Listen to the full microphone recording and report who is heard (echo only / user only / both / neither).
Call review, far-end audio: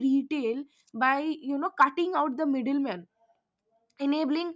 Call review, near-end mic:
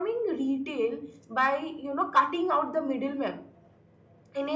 echo only